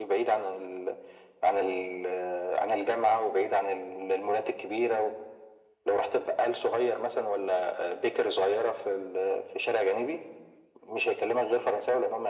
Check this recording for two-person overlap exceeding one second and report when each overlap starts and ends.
none

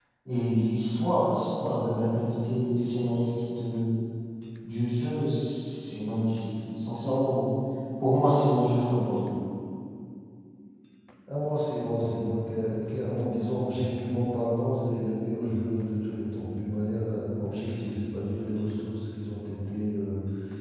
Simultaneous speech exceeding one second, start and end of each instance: none

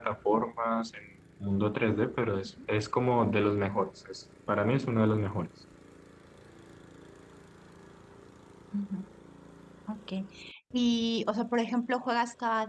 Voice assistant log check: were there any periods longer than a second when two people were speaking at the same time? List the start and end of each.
none

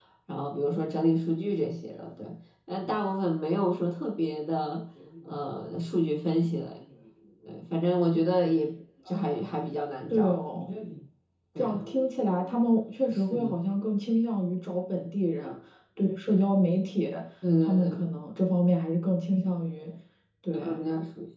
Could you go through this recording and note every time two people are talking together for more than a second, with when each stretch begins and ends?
none

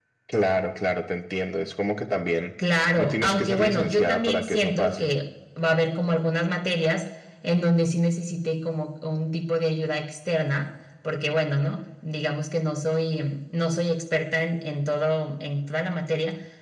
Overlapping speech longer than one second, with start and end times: 3.0-5.1

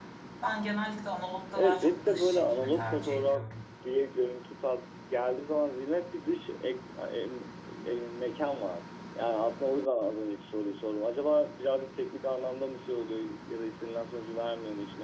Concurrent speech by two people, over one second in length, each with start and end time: 1.5-3.4

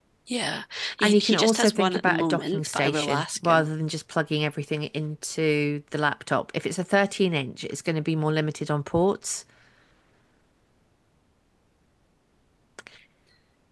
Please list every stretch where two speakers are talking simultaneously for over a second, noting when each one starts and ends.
1.0-3.7

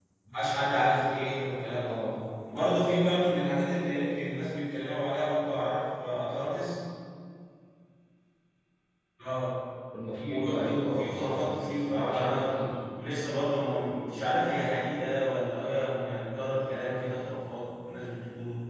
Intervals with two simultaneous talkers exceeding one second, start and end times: 10.2-12.7

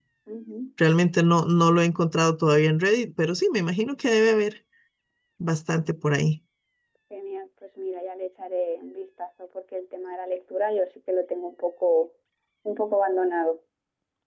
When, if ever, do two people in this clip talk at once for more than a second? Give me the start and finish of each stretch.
none

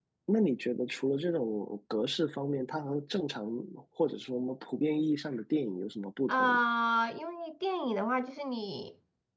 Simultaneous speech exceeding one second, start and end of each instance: none

